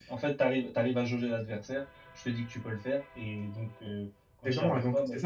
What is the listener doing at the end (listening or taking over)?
taking over